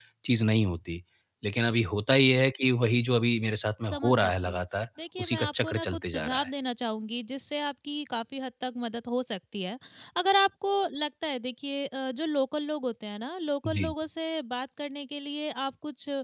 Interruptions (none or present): present